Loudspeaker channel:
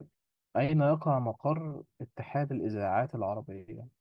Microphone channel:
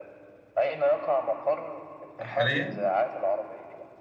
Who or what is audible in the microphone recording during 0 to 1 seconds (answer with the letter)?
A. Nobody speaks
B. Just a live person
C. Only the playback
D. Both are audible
C